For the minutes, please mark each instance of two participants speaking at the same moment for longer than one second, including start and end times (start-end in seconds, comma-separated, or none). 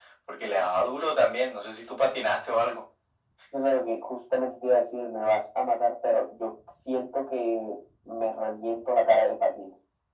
none